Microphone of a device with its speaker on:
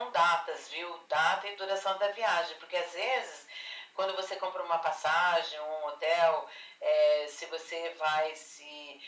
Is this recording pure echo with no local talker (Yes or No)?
Yes